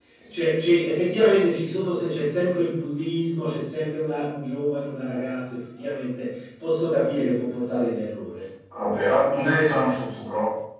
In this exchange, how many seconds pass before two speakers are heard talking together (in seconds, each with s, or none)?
none